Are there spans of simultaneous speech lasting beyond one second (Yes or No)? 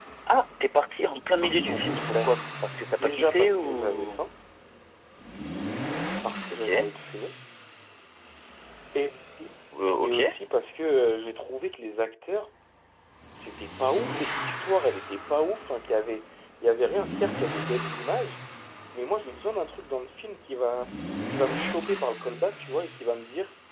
Yes